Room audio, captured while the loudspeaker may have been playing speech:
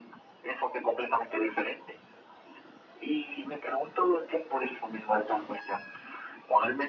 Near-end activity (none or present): none